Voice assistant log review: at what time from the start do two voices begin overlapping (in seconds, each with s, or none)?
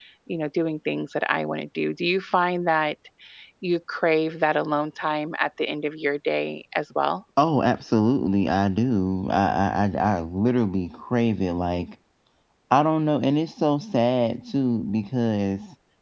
none